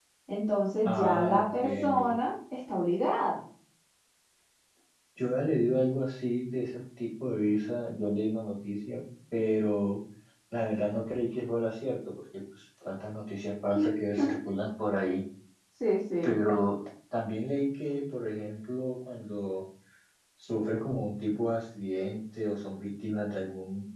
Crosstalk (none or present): present